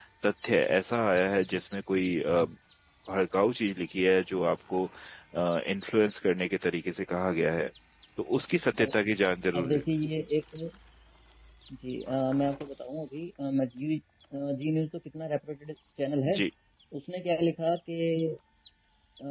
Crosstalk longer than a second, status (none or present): none